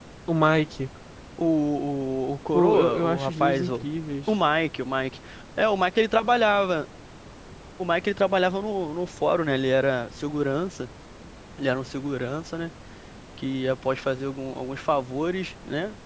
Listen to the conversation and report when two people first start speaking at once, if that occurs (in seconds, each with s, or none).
2.5 s